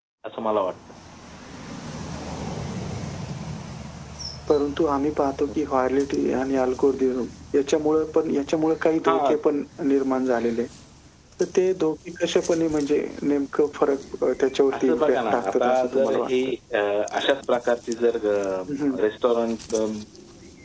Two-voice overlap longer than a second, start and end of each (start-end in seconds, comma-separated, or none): 14.7-16.3